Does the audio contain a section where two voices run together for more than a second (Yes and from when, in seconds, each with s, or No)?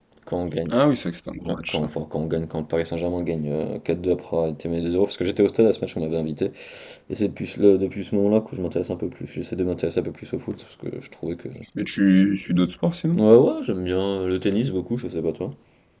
No